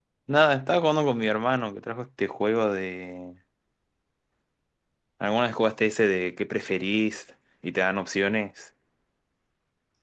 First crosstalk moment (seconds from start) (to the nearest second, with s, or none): none